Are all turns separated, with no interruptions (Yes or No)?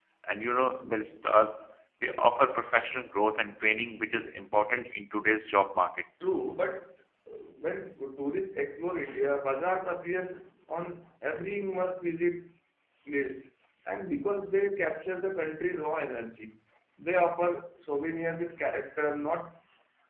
Yes